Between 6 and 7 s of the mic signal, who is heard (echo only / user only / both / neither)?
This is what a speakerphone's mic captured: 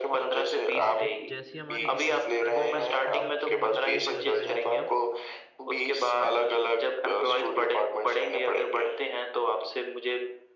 echo only